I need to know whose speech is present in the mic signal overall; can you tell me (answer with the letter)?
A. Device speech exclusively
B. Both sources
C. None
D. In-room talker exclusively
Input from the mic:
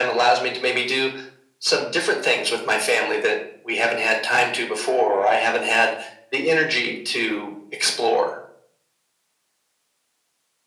A